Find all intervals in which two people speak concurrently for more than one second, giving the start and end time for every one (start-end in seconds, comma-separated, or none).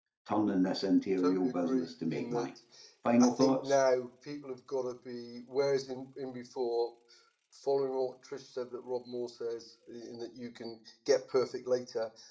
1.2-2.5